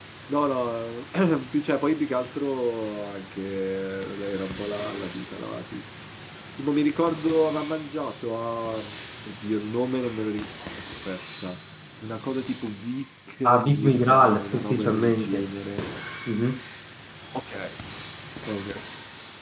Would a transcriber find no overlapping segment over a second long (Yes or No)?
No